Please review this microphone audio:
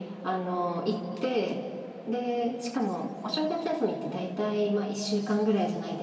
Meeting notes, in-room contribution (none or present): none